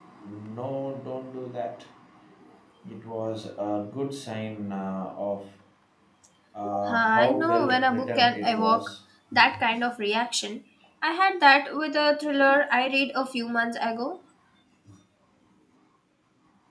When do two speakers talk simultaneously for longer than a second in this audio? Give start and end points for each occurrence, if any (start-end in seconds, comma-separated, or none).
6.9-8.9